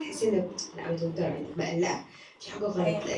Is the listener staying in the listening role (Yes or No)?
Yes